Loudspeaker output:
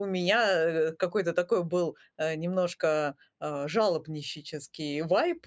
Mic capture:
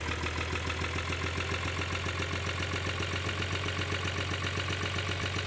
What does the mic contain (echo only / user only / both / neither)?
neither